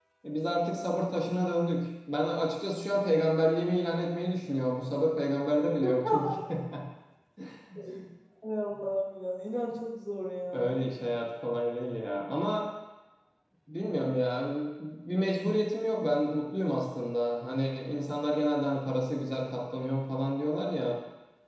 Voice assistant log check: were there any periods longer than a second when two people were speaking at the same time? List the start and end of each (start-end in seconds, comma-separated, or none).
none